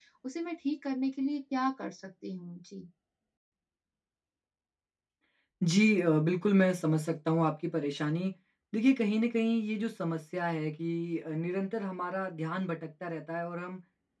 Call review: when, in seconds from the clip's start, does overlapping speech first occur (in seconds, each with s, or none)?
none